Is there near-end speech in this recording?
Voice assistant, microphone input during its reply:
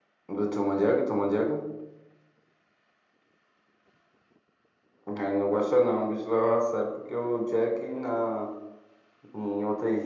No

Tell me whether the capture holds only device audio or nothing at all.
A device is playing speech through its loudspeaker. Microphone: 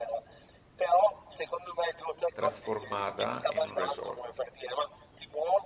No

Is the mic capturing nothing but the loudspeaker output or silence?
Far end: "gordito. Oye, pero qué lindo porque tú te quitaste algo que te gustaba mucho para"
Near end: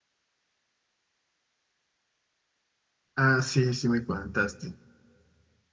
No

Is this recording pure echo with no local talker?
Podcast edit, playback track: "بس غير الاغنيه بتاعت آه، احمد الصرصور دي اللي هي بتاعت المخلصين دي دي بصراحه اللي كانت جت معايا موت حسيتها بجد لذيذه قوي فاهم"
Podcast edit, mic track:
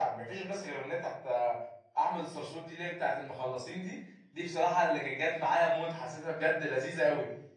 Yes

